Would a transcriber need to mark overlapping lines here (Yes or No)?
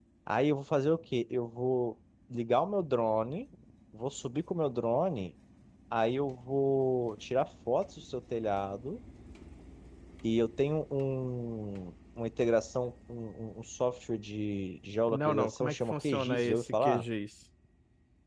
Yes